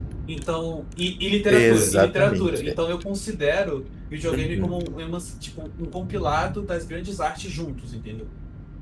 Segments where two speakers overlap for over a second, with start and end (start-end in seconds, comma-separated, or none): 1.5-2.8